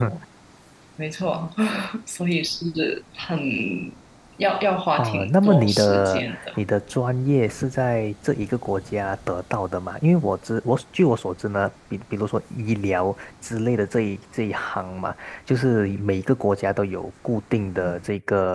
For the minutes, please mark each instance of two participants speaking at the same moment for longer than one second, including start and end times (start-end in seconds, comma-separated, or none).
5.0-6.5